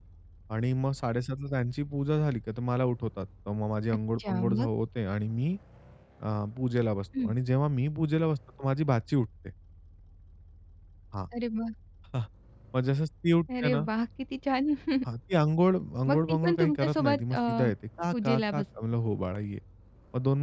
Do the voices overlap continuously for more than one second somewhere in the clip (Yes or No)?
Yes